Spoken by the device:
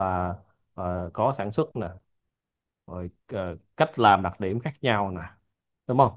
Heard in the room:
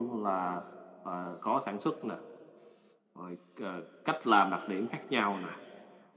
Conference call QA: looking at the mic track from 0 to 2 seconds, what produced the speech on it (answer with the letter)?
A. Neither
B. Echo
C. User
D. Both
B